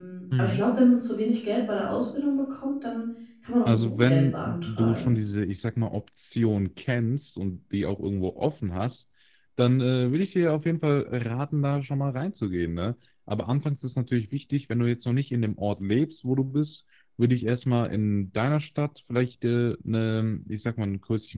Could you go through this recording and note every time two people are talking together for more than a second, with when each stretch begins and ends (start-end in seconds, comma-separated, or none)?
3.6-5.1